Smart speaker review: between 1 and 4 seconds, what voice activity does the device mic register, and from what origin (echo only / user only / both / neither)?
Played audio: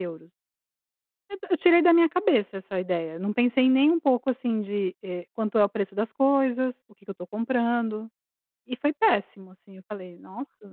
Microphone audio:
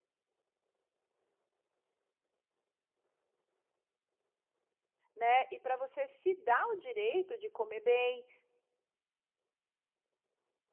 neither